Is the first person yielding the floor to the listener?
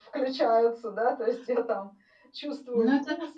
Yes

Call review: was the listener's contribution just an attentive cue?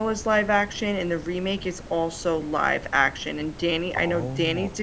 Yes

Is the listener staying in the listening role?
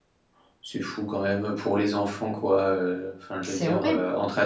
Yes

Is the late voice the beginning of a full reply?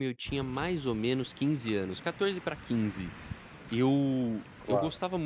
No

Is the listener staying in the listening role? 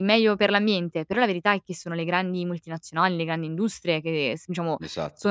Yes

